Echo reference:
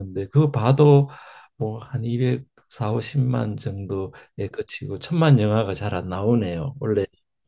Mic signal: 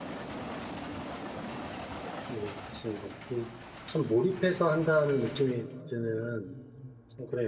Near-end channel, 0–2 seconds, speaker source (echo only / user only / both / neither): neither